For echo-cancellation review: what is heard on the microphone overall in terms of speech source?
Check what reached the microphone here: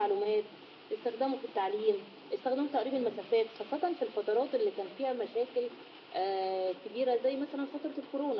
echo only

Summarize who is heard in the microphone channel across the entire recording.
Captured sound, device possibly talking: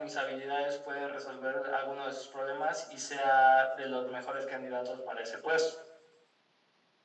echo only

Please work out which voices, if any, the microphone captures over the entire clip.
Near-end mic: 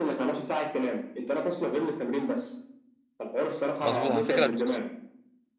both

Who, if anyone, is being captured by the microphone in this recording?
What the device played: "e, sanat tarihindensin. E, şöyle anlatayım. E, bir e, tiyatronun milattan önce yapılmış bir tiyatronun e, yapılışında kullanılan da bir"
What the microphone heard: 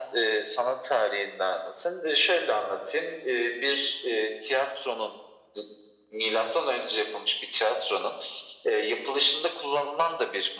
echo only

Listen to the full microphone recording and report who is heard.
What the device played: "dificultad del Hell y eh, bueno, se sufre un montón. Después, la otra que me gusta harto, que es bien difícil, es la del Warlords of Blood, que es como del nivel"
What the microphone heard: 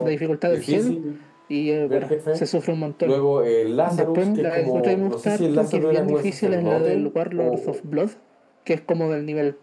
both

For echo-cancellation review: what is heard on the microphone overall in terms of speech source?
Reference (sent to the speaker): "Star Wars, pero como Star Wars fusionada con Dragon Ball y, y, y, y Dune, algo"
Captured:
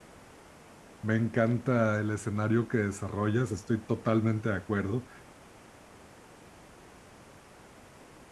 user only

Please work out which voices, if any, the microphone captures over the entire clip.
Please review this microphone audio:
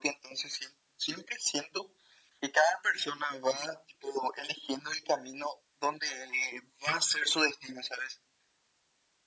echo only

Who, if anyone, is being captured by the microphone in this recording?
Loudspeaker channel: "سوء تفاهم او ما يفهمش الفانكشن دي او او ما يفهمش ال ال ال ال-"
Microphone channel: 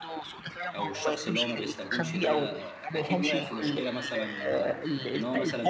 both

